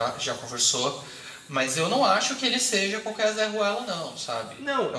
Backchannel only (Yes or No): No